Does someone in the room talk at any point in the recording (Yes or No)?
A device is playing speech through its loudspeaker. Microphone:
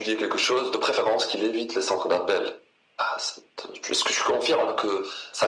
No